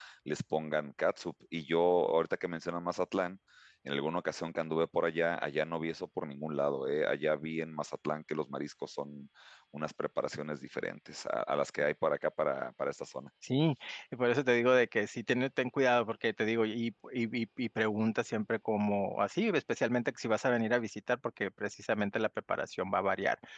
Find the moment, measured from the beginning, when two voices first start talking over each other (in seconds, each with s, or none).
none